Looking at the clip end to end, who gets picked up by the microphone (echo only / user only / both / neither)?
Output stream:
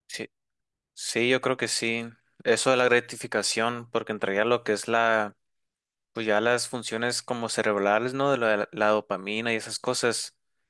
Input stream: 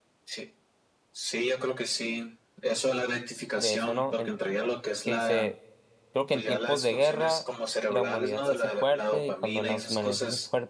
both